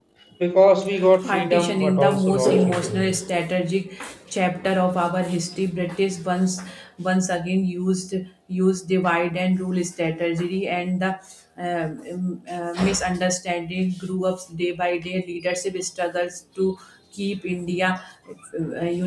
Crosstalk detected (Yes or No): Yes